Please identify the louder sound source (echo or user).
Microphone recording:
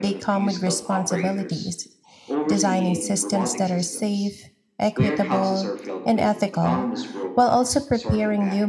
user